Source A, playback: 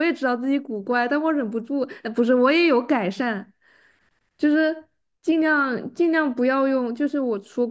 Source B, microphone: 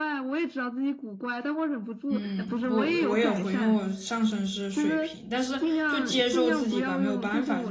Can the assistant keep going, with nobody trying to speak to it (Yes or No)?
No